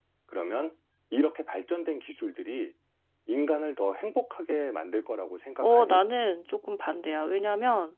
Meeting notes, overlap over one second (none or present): none